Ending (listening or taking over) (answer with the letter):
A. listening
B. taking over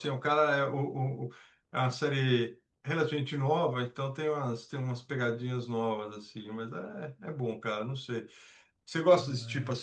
A